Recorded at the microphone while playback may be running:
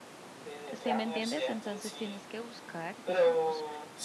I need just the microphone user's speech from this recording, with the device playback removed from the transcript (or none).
si me entiendes, entonces tienes que buscar, digamos,